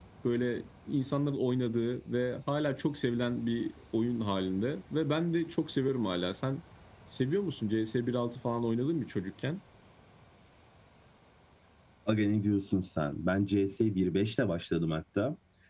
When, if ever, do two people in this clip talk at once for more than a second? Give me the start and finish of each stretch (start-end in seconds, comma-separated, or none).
none